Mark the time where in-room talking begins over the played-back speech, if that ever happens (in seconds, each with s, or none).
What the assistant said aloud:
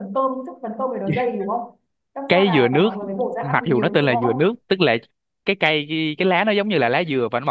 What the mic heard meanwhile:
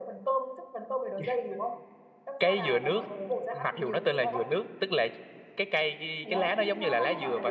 6.2 s